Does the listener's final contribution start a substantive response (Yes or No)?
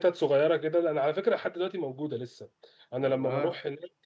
No